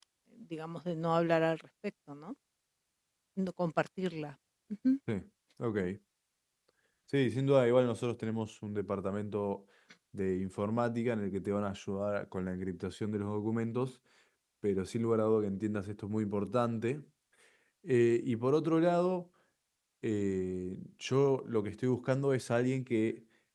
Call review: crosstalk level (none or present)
none